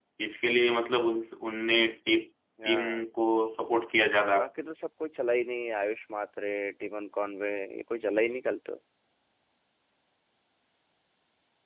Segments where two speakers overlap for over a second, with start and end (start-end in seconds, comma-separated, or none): none